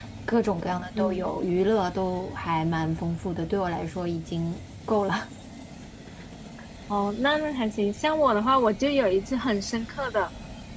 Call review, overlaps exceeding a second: none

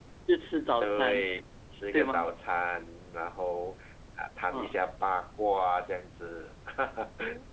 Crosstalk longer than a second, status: none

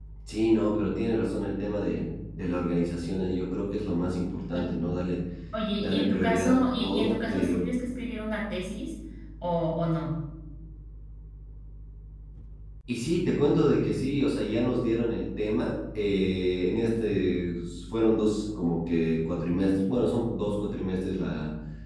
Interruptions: present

